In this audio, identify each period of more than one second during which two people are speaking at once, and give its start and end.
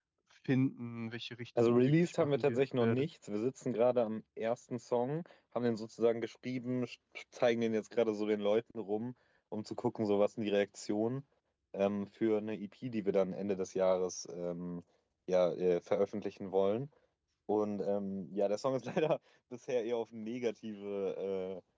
1.6-3.0

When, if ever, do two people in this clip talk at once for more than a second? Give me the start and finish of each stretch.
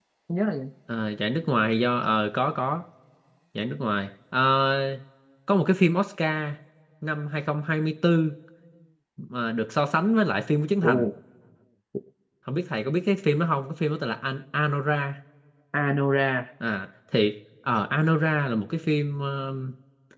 none

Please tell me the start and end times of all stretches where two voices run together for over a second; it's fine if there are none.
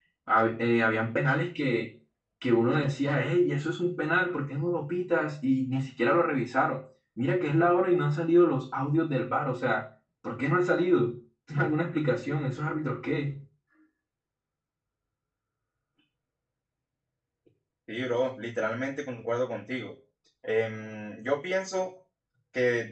none

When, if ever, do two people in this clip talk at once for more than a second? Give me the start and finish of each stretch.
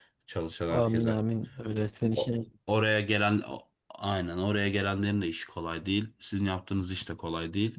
none

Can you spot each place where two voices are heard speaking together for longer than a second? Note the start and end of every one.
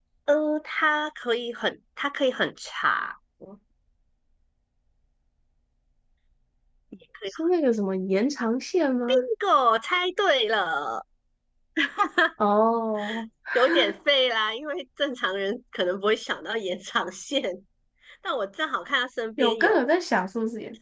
none

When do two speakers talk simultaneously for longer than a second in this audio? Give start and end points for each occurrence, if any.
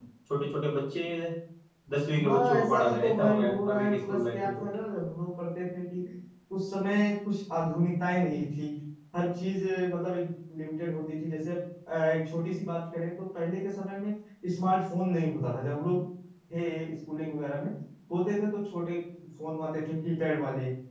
2.2-4.6

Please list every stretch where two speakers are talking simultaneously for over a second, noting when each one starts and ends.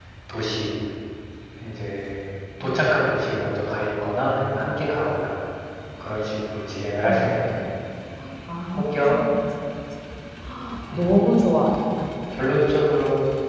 none

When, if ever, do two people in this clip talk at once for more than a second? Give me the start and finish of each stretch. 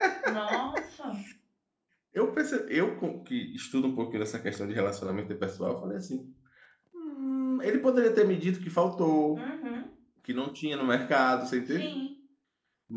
none

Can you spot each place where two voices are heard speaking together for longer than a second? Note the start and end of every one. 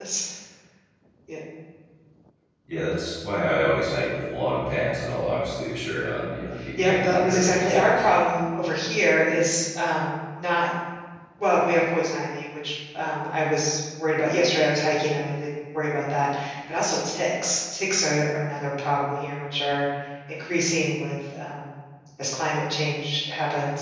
6.8-8.1

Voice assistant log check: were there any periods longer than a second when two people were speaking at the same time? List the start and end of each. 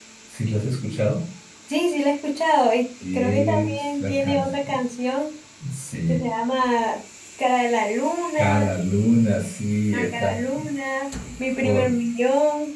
3.1-4.8

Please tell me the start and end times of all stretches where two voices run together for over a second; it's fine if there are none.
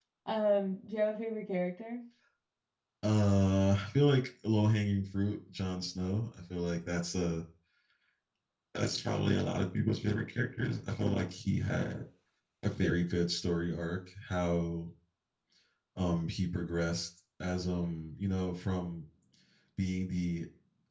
none

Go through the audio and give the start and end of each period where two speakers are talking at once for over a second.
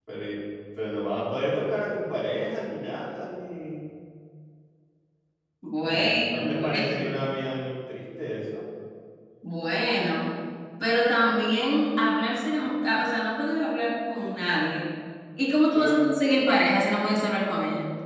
5.9-7.2

